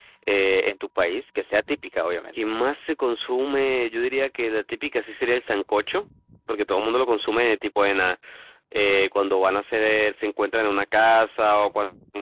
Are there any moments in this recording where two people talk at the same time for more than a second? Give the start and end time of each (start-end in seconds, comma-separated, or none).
none